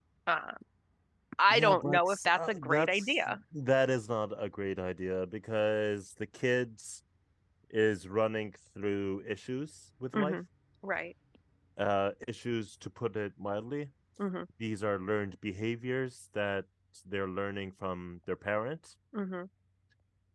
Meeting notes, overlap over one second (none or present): present